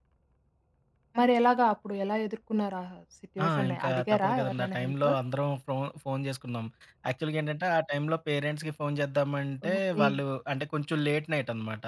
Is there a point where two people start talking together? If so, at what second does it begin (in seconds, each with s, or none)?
3.4 s